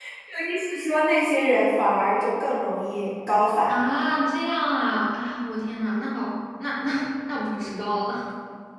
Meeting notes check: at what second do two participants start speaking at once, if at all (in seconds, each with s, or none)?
none